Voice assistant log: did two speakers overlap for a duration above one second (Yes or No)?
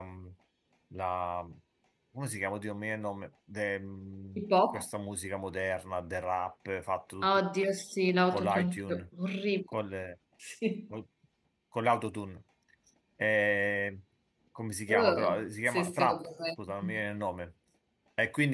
Yes